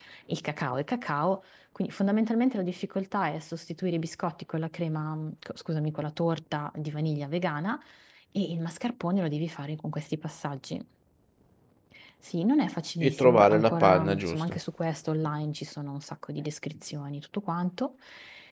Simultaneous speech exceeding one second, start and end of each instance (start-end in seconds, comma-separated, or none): 13.0-14.6